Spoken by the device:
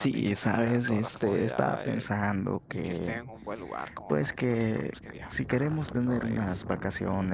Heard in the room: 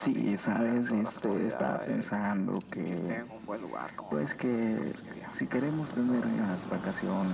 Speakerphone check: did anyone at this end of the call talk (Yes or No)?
No